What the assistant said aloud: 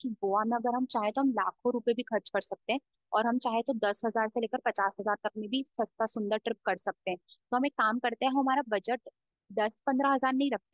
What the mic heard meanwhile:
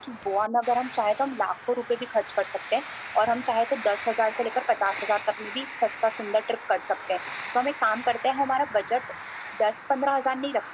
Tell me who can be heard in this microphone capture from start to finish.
echo only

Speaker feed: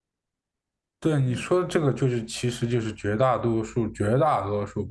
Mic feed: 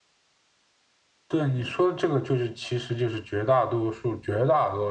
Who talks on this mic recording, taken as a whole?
echo only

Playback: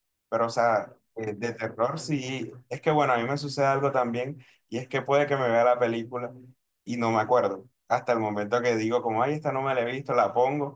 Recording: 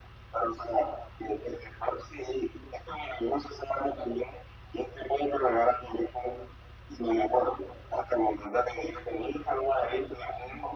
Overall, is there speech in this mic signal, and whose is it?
echo only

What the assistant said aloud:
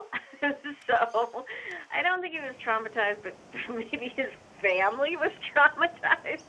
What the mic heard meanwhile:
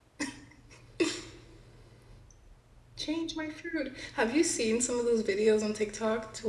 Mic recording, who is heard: user only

